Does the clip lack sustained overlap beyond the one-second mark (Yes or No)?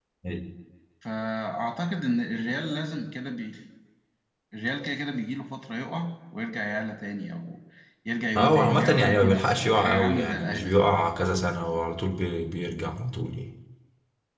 No